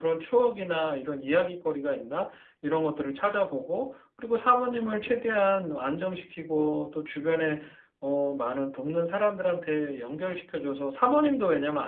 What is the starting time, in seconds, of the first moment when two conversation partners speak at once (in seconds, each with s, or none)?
none